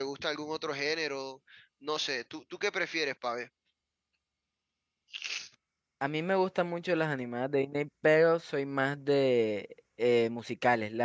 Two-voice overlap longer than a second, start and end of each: none

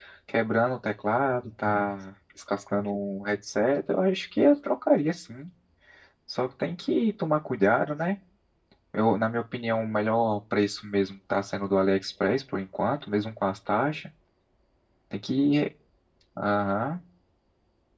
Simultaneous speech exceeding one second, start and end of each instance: none

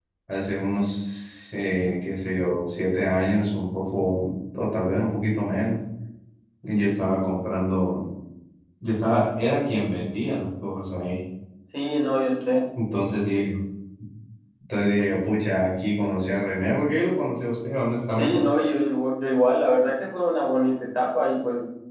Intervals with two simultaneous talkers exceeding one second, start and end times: none

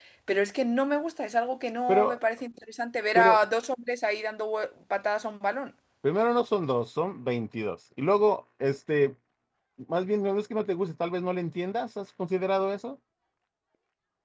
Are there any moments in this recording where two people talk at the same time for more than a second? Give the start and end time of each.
none

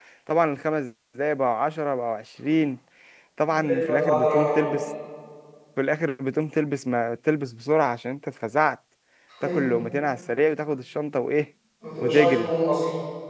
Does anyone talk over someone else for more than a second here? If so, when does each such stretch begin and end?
3.5-4.7

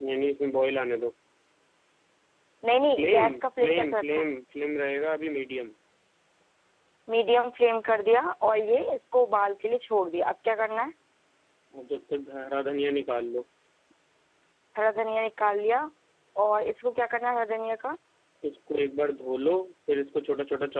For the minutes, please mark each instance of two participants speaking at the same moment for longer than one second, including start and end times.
3.0-4.3

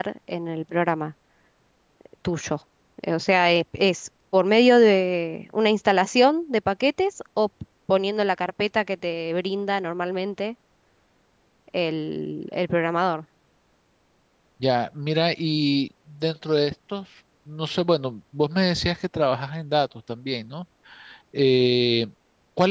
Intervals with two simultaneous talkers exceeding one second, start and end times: none

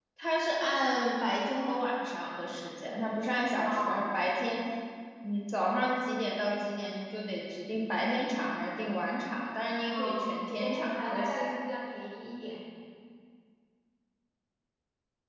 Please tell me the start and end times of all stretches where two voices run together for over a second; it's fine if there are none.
9.9-11.6

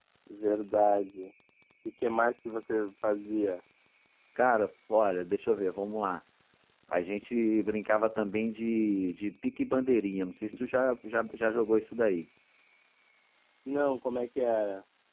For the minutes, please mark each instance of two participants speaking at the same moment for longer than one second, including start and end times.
none

